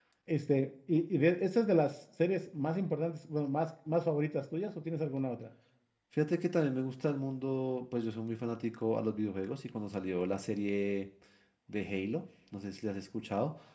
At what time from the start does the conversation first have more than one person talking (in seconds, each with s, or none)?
none